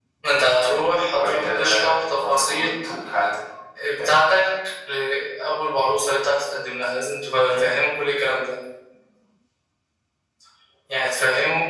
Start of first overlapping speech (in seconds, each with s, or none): 1.1 s